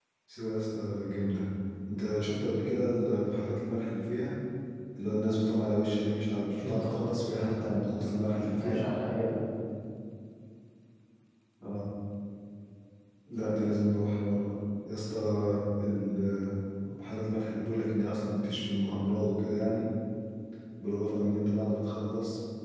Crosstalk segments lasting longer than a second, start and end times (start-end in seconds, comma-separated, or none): 6.5-8.8